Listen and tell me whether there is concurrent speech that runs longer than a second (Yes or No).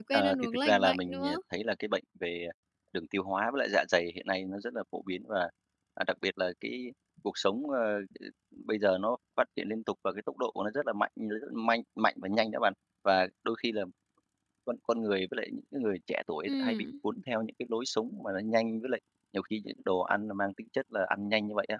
Yes